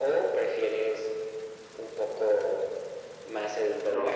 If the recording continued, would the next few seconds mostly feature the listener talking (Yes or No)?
Yes